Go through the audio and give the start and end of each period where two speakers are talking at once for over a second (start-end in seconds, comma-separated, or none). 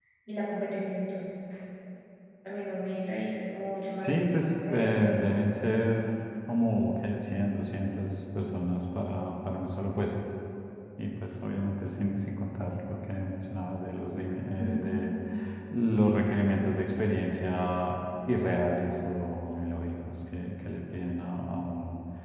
4.0-5.5